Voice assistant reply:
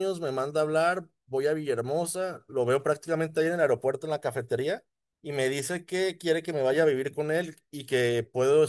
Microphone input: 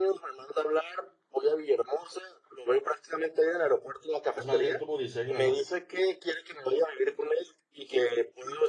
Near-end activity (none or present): present